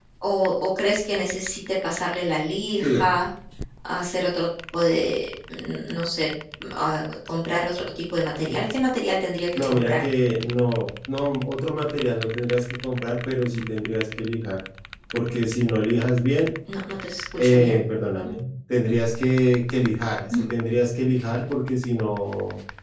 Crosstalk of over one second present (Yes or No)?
No